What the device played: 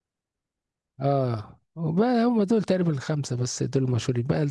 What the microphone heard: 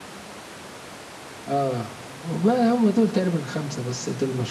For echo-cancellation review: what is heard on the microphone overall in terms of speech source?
echo only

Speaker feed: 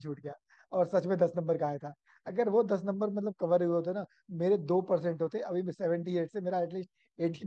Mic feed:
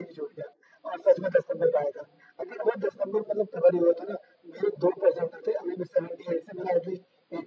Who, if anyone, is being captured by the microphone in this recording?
echo only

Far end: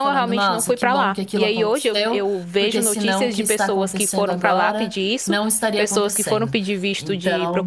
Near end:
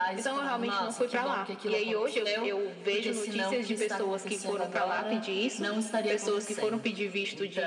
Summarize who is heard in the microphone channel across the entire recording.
echo only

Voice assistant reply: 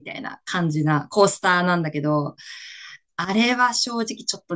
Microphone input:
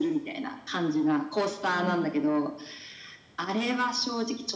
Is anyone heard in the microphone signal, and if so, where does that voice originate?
both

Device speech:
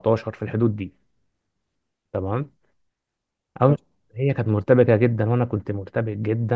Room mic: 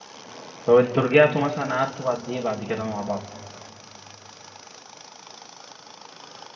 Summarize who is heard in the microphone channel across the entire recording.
user only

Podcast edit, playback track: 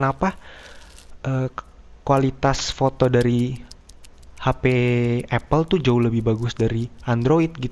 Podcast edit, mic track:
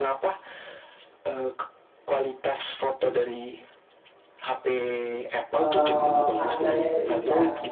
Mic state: both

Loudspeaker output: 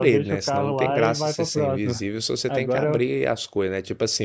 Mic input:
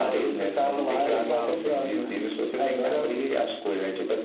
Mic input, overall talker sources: both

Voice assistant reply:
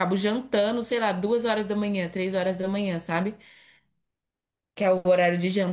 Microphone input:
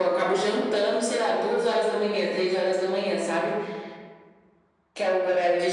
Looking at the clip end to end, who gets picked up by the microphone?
echo only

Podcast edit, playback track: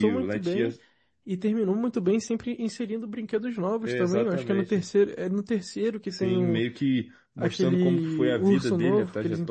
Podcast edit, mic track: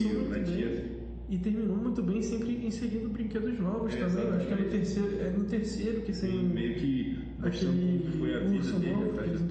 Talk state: echo only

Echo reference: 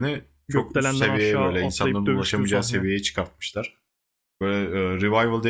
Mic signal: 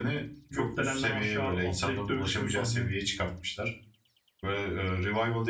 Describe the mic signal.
echo only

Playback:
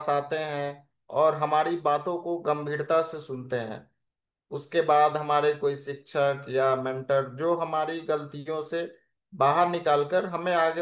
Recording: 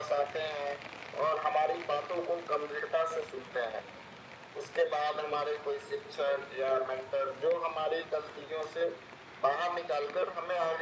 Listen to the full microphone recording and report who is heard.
echo only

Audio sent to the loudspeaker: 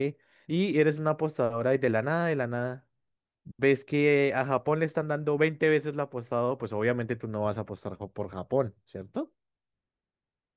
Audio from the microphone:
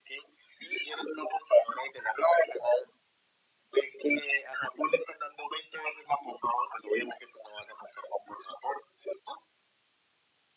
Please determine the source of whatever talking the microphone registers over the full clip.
echo only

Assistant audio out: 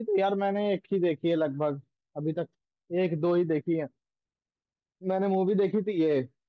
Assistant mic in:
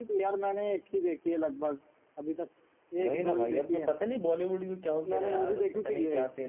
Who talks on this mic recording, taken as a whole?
both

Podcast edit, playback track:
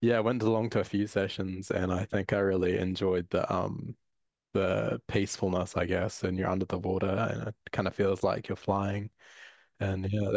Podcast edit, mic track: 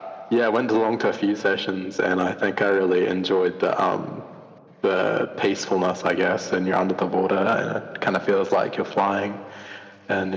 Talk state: echo only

